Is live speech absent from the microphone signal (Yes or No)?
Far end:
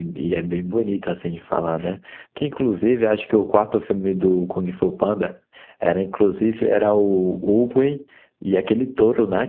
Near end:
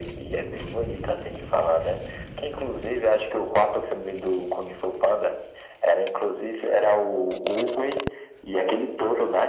Yes